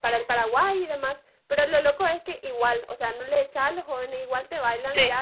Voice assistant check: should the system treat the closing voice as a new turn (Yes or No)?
No